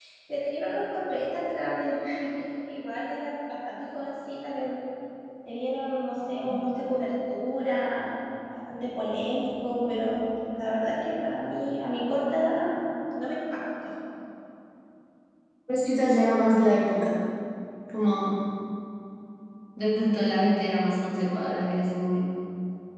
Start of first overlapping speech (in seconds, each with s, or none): none